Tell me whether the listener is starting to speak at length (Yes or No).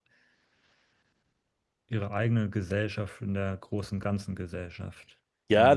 Yes